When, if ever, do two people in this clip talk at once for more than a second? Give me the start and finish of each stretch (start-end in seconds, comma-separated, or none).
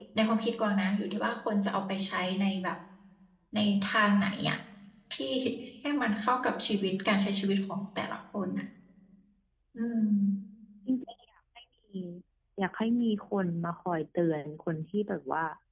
none